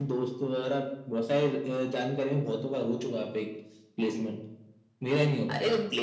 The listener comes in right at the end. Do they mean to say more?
Yes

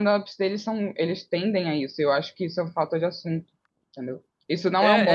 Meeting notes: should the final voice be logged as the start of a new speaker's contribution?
Yes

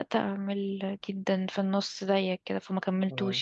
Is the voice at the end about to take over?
Yes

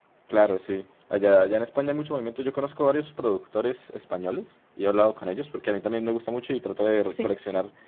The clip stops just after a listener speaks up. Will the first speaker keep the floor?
Yes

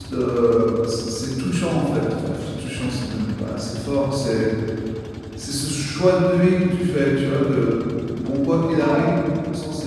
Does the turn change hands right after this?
No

